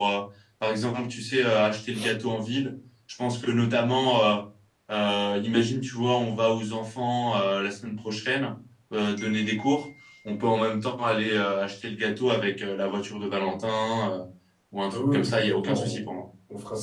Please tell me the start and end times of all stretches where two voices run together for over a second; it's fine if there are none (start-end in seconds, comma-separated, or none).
14.9-16.1